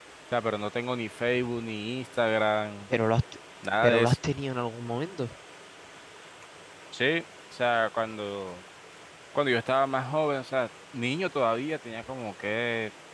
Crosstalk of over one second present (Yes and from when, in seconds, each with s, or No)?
No